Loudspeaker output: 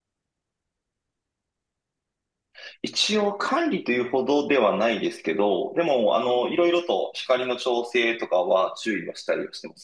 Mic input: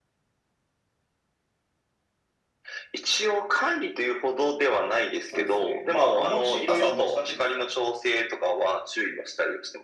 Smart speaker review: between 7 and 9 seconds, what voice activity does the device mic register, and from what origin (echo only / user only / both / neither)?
both